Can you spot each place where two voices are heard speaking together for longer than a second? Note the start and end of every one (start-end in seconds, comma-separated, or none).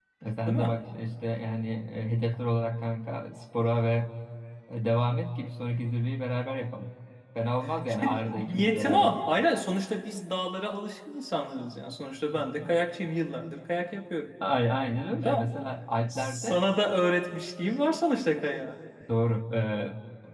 7.9-9.1